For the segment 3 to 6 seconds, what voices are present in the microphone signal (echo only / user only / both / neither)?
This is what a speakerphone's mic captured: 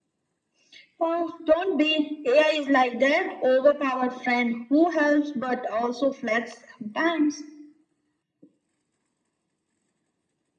echo only